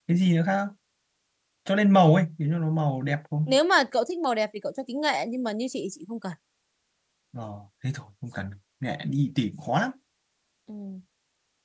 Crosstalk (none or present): none